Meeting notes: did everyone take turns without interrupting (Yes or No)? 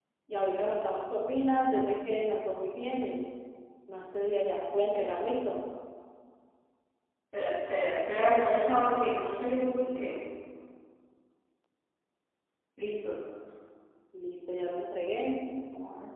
Yes